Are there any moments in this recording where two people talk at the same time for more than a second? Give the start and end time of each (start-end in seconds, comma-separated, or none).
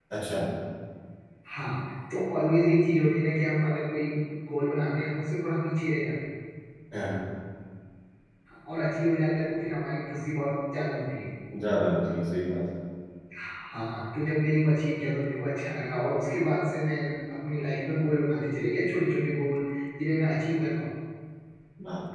none